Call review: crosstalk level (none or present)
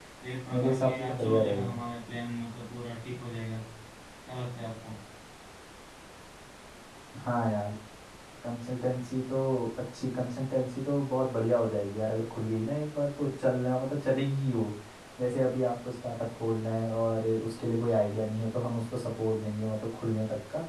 present